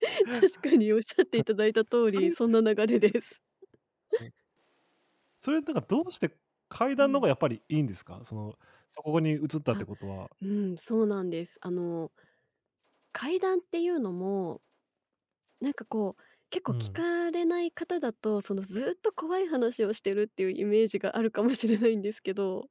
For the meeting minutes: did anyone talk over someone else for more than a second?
No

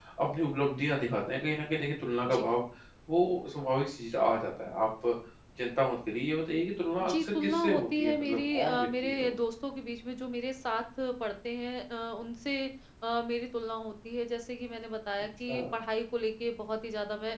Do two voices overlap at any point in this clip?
Yes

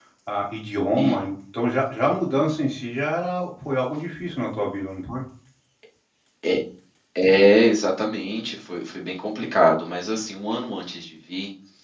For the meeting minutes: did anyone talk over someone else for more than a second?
No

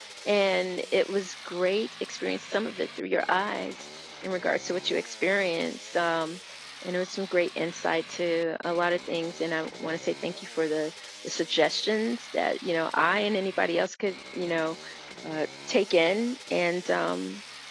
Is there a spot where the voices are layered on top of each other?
No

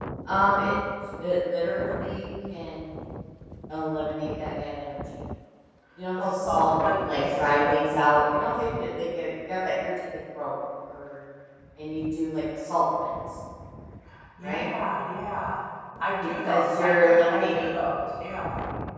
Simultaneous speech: Yes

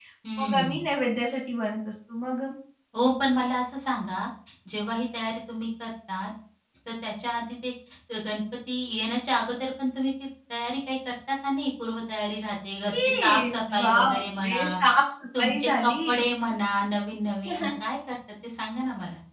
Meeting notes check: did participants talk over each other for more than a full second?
Yes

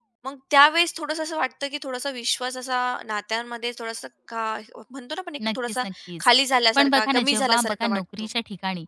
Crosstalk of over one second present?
Yes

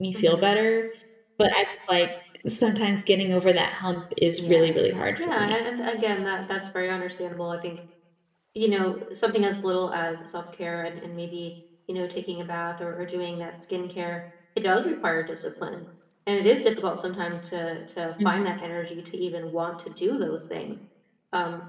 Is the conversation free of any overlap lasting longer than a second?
Yes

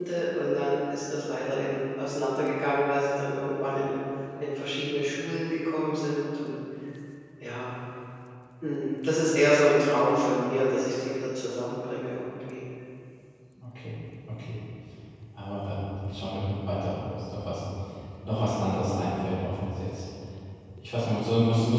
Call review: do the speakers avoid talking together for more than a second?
Yes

